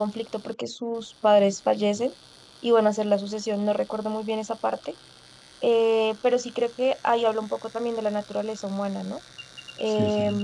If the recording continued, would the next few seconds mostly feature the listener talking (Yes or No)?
No